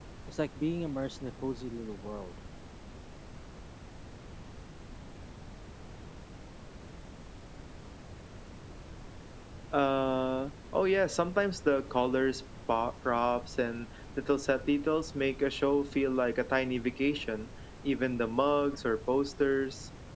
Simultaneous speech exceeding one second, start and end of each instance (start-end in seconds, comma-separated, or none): none